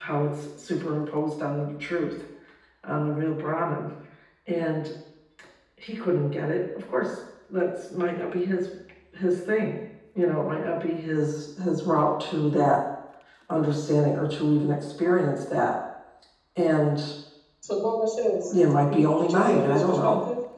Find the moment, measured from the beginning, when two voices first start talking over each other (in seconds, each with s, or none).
18.5 s